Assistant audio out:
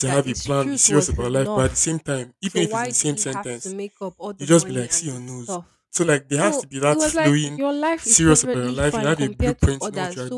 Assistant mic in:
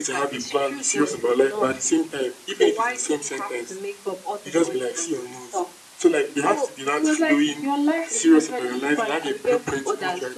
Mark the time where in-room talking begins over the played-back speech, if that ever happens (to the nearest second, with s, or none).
none